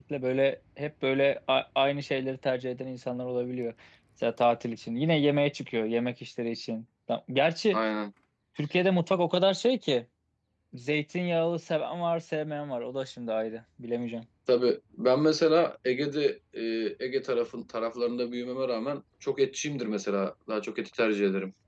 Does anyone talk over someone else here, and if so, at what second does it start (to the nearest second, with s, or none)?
none